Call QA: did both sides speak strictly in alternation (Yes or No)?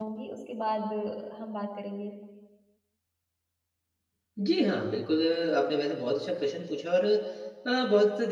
Yes